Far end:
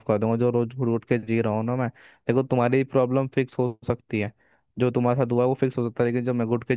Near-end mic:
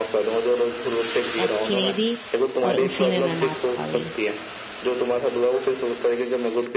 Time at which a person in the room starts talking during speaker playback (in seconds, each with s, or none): 1.4 s